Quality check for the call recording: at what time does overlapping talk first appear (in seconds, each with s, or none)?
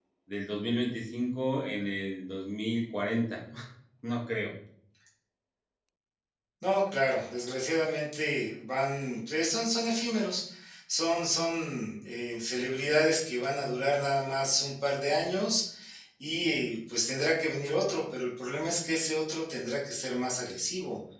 none